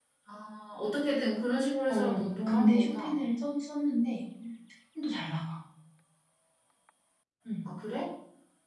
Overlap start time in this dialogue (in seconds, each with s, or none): 1.9 s